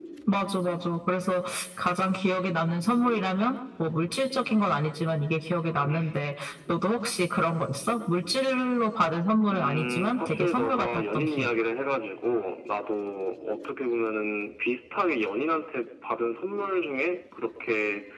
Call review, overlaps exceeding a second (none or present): present